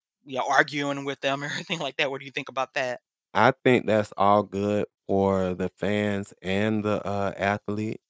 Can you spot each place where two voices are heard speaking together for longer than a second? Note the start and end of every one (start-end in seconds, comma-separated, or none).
none